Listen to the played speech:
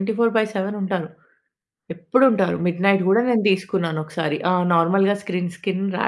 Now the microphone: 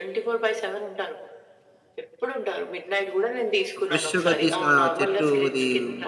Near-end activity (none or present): present